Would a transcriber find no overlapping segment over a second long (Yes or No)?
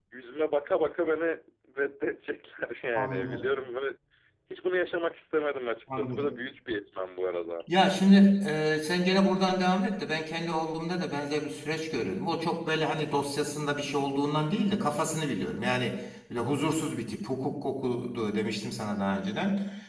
Yes